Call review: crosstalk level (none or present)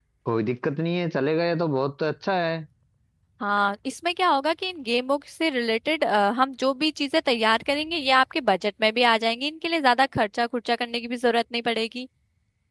none